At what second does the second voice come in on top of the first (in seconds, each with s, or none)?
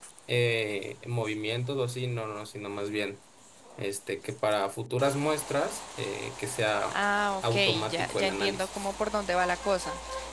7.5 s